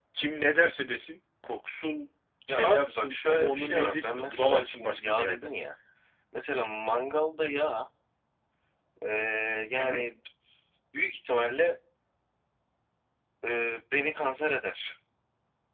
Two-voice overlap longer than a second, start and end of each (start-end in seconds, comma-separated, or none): 2.5-5.5